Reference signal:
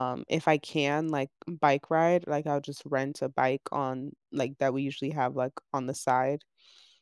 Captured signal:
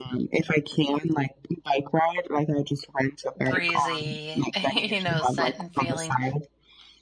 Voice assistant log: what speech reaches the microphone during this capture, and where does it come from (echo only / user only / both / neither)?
both